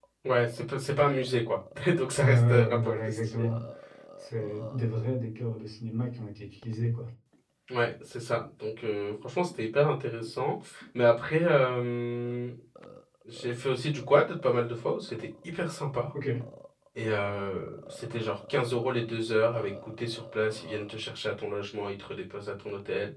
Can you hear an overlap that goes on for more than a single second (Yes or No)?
Yes